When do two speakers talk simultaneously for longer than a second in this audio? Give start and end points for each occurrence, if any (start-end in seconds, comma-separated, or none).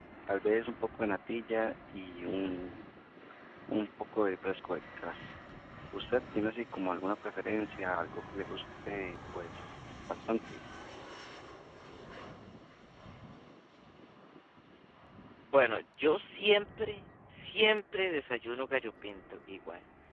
none